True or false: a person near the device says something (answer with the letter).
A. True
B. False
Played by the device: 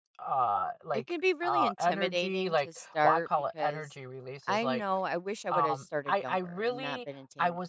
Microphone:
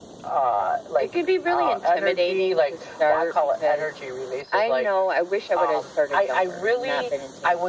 B